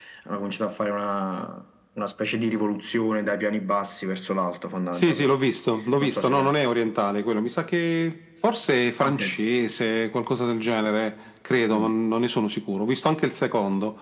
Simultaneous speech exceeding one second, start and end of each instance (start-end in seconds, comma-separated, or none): none